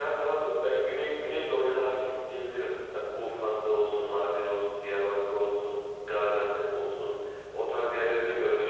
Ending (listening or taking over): listening